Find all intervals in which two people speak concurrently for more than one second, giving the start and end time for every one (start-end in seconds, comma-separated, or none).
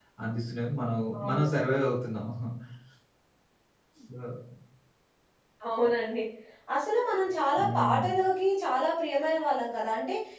none